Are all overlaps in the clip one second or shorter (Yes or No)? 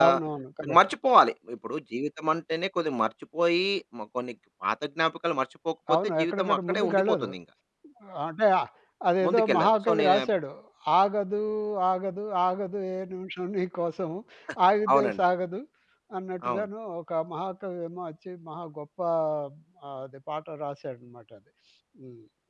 No